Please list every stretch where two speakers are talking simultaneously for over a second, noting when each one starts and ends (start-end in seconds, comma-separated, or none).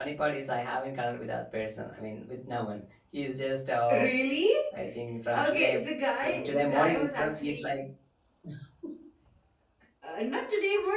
6.2-7.7